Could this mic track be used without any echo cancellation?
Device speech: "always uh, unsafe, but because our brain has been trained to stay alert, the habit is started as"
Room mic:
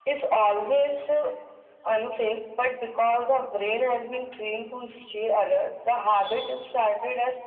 No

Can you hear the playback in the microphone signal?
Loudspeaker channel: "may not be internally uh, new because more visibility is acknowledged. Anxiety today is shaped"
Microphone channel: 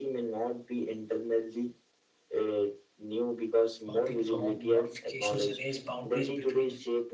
Yes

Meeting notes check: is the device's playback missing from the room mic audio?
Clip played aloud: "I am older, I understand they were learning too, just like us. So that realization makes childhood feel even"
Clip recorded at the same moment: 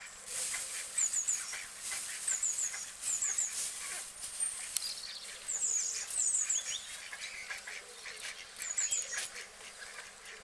Yes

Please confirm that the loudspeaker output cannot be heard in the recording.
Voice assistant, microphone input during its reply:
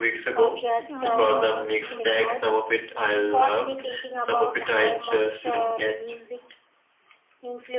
No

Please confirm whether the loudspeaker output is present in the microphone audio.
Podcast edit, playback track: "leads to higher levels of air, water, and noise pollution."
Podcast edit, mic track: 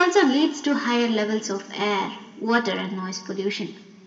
Yes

